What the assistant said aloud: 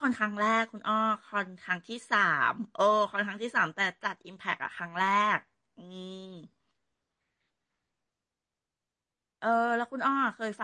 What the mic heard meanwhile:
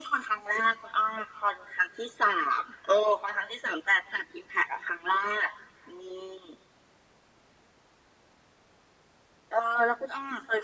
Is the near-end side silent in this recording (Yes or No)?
Yes